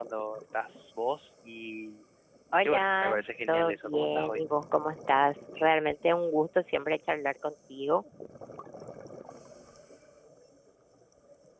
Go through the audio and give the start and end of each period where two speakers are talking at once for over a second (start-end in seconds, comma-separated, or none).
2.6-4.4